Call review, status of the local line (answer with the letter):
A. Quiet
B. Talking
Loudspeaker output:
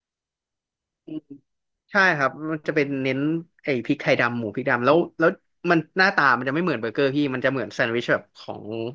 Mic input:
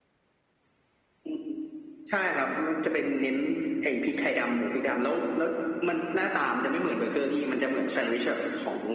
A